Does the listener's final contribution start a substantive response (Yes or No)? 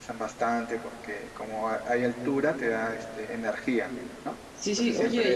Yes